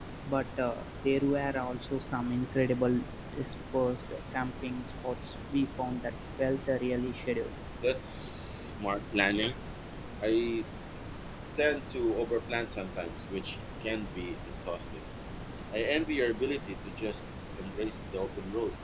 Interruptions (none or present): none